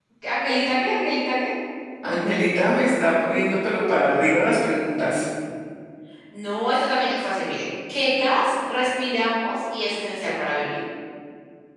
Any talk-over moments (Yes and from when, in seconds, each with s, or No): No